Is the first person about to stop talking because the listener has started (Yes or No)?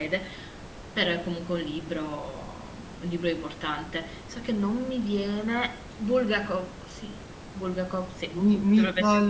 Yes